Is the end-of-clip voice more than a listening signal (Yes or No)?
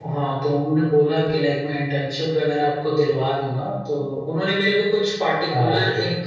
No